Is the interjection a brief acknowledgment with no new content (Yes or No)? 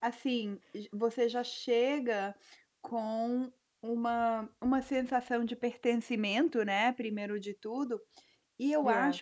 Yes